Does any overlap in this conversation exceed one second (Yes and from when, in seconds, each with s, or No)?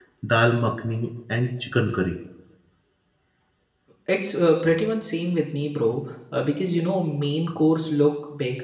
No